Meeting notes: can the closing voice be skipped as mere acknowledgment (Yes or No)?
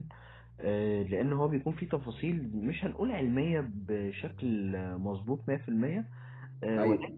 Yes